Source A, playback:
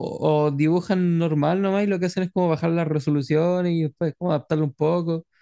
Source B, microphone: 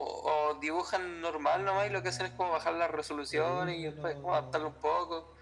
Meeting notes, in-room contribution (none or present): present